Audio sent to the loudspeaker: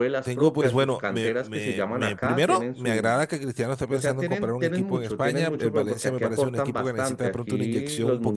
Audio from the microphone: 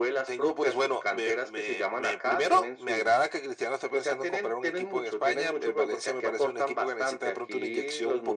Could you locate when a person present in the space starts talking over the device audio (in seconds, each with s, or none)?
none